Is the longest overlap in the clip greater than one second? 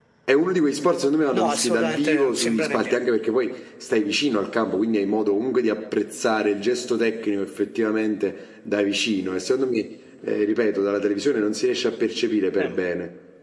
Yes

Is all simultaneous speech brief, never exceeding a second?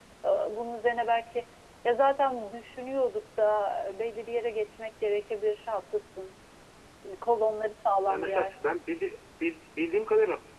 Yes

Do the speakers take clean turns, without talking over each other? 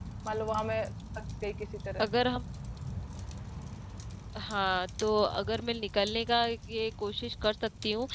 Yes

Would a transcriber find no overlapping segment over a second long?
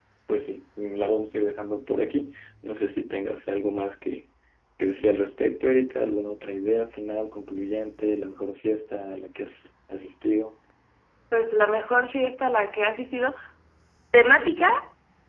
Yes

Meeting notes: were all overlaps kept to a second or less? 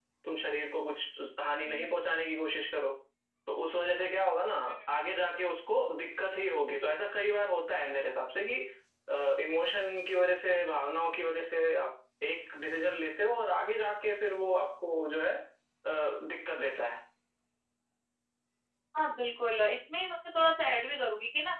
Yes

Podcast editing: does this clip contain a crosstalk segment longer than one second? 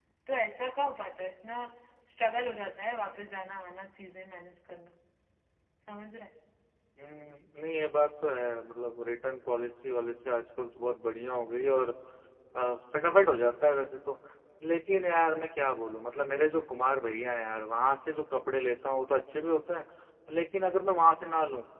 No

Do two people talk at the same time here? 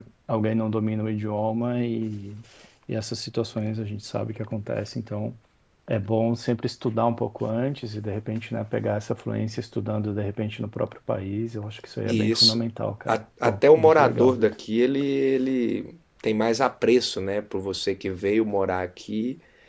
Yes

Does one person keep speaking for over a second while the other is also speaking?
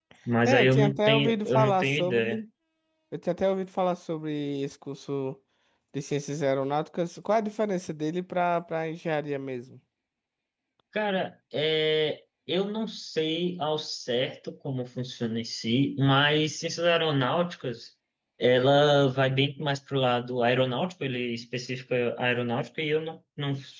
Yes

